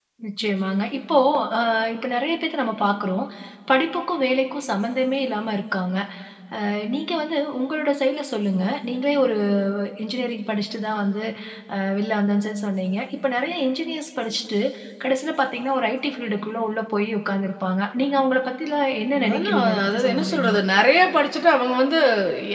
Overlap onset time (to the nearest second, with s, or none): 19 s